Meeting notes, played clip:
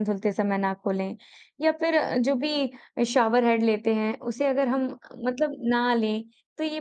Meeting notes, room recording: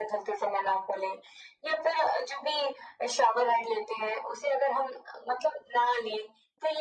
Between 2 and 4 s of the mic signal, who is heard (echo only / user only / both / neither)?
echo only